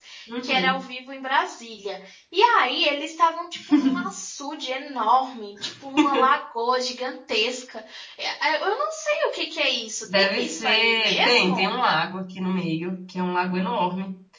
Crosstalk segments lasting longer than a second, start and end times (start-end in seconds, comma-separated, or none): 10.2-11.7